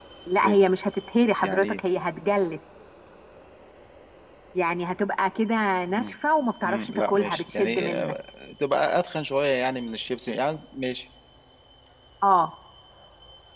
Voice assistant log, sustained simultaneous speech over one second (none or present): present